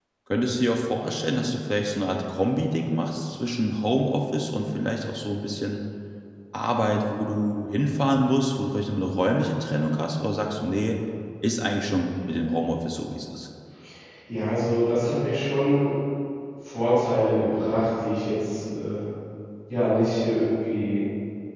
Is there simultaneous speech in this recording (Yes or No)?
No